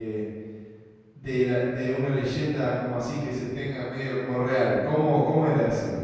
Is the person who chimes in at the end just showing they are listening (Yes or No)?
No